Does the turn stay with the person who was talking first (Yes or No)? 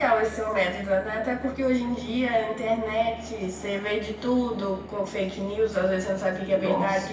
Yes